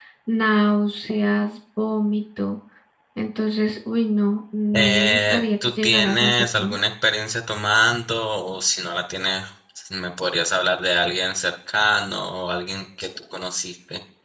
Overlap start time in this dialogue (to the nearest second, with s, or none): 5 s